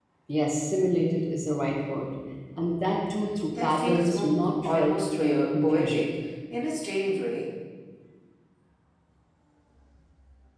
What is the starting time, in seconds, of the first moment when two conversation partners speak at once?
4 s

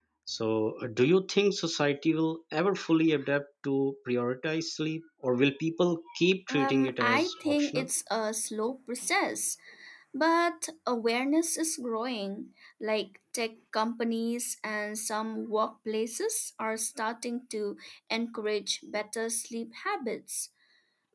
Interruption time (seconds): 6 s

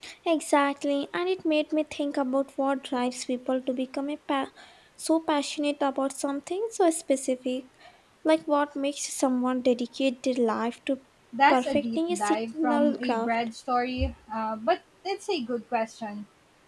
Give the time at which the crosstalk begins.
12 s

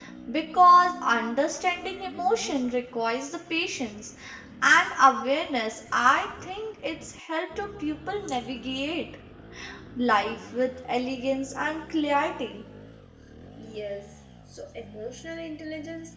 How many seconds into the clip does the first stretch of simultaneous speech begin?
none

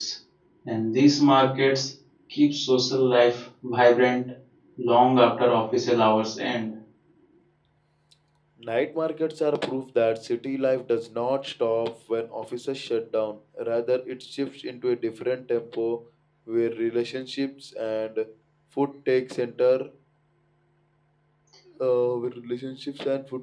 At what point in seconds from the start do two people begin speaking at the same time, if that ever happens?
none

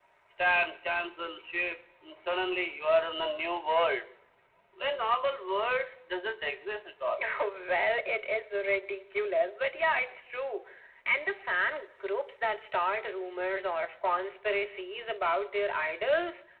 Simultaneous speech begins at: none

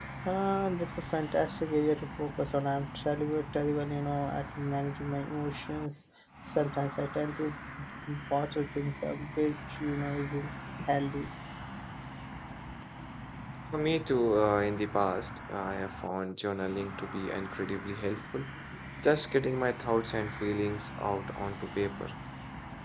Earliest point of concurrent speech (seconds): none

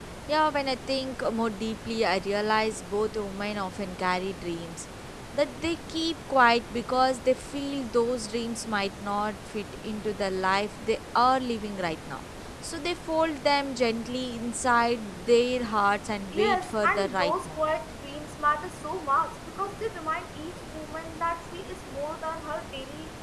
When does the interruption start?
16 s

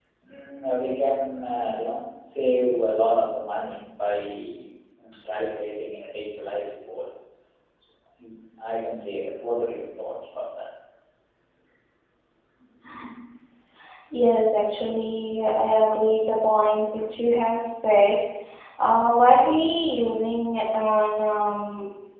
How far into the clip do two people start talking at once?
none

